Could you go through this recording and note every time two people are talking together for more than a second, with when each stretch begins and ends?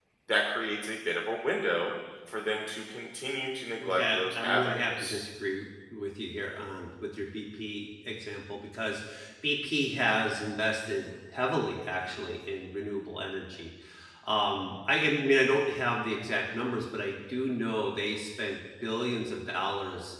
3.8-5.2

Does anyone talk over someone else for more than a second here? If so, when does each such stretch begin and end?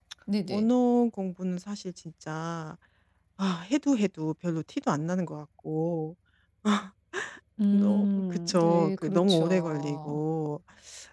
7.7-10.2

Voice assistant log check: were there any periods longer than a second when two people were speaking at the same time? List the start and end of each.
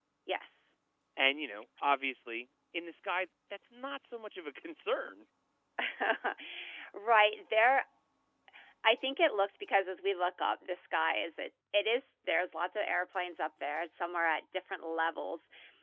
none

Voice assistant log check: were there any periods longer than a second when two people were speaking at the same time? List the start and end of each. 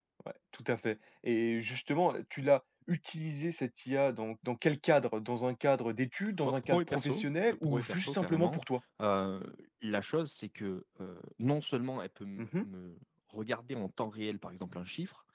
6.4-8.6

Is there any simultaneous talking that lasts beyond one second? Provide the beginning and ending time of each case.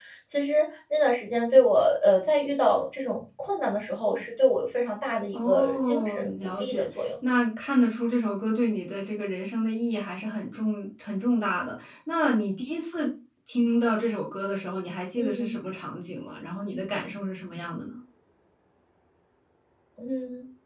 5.3-7.1

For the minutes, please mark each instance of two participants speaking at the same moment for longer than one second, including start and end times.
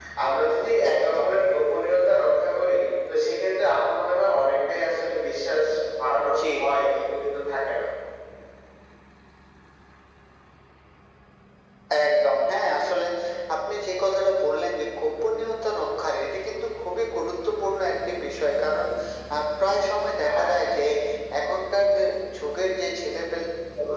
none

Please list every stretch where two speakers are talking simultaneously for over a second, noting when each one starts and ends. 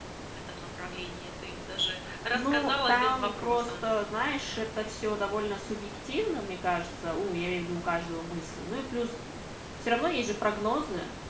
2.3-3.7

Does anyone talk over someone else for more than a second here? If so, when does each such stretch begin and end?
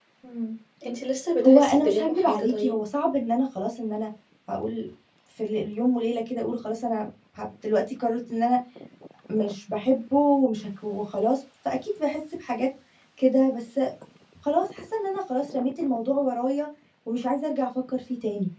1.4-2.8

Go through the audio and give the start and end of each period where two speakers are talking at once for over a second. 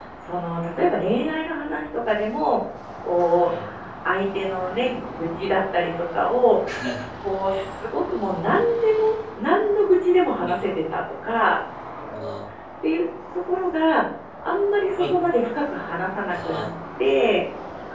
none

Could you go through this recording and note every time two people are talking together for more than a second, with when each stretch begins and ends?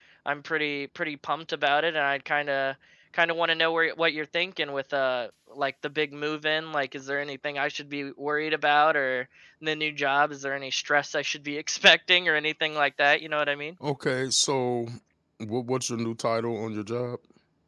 none

